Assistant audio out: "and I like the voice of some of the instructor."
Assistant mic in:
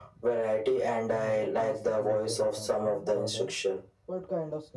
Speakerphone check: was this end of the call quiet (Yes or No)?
No